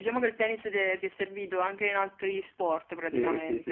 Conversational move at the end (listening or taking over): taking over